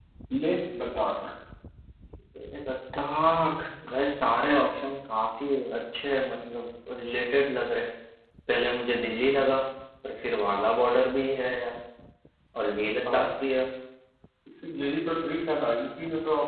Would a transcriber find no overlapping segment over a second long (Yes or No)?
Yes